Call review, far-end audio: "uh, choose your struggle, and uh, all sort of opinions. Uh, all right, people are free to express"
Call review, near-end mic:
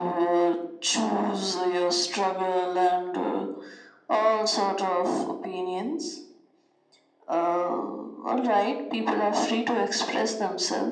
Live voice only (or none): none